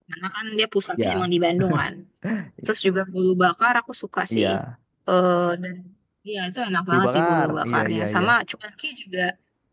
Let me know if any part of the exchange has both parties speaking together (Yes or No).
Yes